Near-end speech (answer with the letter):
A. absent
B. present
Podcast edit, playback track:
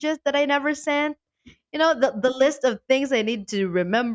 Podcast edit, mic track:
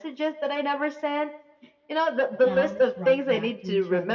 B